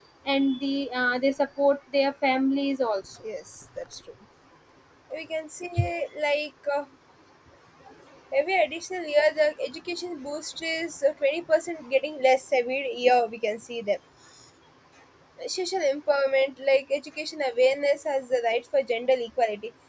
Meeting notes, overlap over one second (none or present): none